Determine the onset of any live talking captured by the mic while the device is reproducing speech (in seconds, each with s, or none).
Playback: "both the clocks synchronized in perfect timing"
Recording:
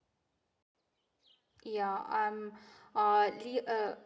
1.6 s